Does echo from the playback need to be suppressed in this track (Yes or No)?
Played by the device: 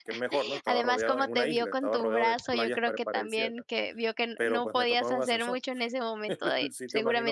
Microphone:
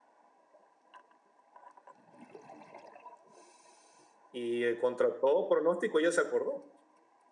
No